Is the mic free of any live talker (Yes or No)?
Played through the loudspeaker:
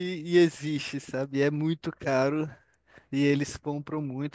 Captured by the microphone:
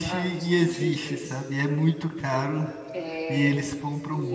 No